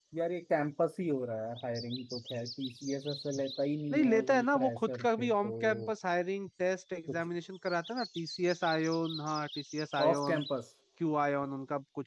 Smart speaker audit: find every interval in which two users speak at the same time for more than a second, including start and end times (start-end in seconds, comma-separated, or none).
3.9-5.9